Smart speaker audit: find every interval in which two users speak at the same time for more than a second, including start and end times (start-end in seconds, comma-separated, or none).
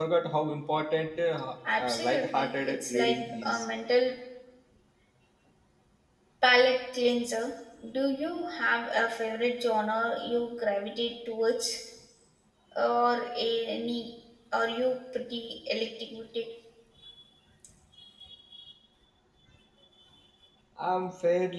1.8-3.6